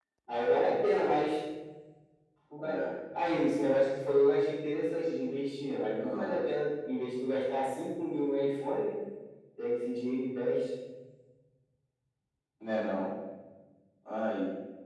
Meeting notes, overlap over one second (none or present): none